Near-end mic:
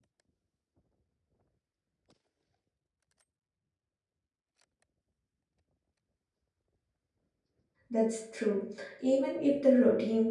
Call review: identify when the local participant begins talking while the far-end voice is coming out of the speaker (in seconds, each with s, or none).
7.9 s